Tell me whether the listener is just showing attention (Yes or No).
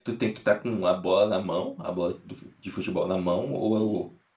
No